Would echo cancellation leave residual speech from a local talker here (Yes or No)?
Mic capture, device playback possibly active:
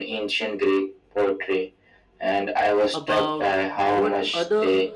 Yes